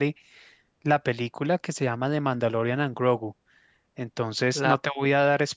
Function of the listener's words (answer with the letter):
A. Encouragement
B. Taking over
A